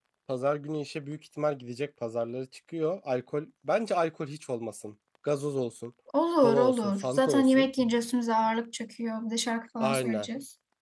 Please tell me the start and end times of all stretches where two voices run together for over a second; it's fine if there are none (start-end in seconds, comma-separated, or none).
6.4-7.7